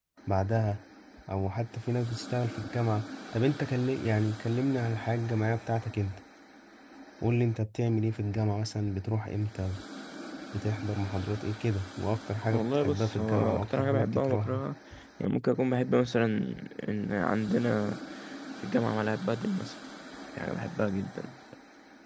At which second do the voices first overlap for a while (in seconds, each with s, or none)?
12.5 s